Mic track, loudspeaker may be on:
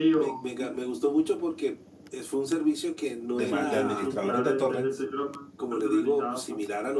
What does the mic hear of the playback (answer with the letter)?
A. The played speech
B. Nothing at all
A